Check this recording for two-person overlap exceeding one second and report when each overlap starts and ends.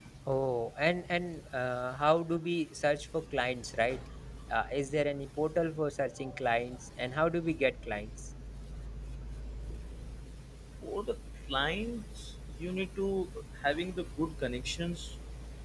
none

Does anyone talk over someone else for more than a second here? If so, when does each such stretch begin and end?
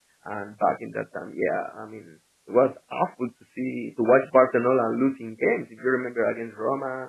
none

